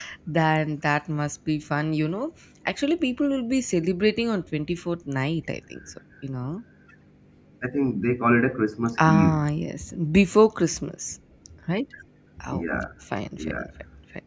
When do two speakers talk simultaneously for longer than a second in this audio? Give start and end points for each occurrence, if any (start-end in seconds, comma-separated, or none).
none